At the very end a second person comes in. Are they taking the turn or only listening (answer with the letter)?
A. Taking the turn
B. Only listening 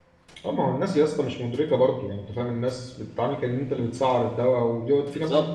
B